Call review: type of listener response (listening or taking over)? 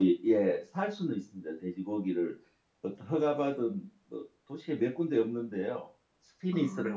listening